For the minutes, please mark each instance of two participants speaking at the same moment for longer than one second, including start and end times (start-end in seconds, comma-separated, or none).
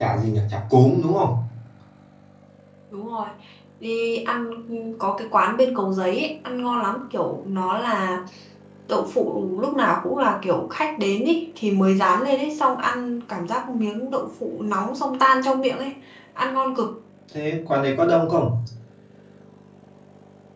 none